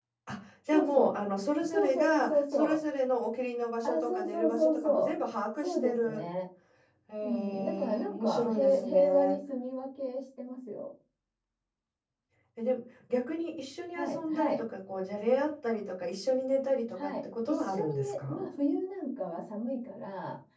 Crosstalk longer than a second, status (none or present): present